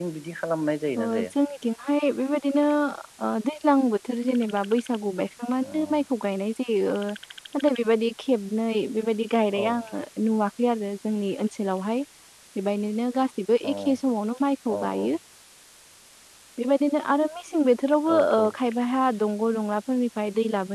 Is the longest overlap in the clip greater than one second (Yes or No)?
No